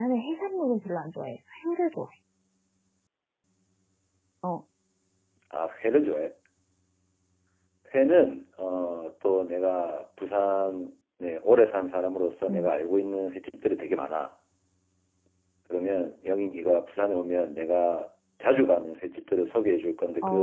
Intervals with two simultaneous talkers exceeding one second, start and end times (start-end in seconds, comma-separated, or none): none